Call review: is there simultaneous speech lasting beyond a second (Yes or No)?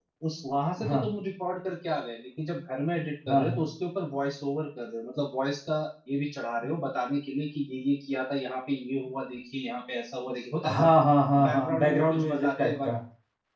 Yes